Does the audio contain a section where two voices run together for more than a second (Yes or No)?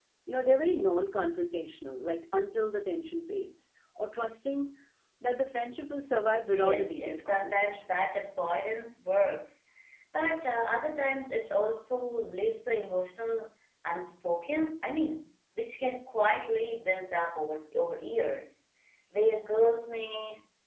Yes